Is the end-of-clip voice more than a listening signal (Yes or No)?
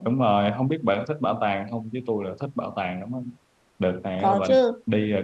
No